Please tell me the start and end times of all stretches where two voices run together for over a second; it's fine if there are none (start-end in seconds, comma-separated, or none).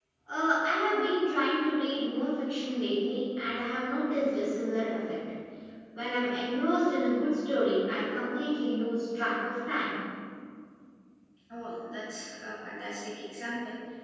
none